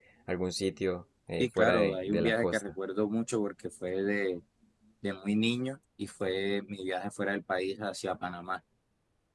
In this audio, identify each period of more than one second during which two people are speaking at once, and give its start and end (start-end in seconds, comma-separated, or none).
1.4-2.6